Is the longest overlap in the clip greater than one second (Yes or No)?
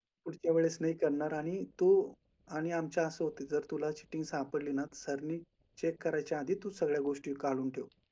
No